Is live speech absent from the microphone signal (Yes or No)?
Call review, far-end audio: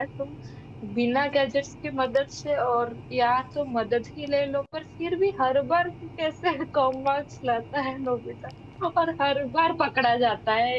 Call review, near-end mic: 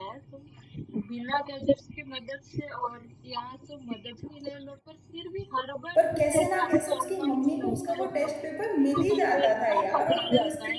No